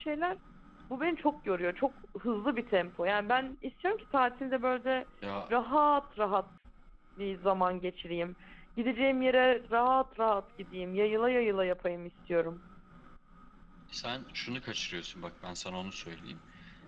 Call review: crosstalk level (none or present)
none